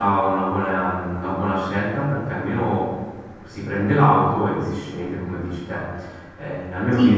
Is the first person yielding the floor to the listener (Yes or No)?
No